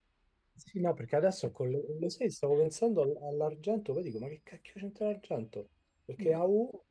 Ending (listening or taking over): listening